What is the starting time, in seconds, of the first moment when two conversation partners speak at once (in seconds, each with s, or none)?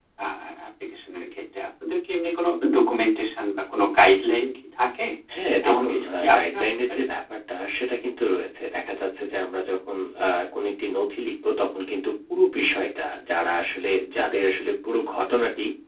5.7 s